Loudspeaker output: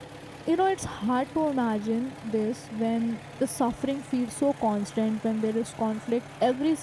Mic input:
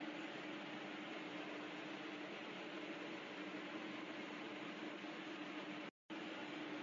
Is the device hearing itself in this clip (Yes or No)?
No